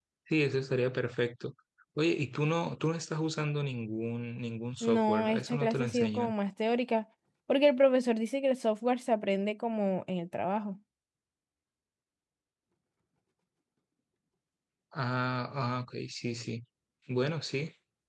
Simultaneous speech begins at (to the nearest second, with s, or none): 5 s